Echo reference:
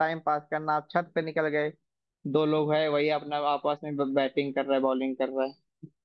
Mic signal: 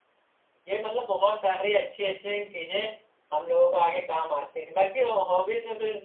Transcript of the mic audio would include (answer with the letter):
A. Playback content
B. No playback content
B